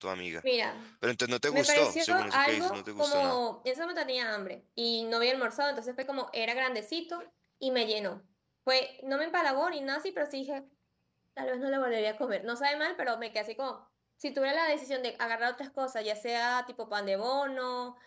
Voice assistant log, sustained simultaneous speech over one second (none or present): present